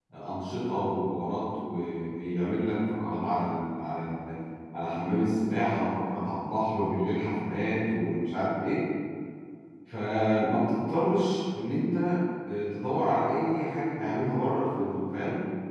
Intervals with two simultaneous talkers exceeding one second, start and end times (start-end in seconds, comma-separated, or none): none